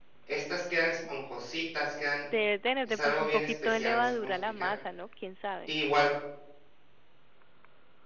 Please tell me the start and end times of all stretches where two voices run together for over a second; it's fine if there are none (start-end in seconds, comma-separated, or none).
2.9-4.7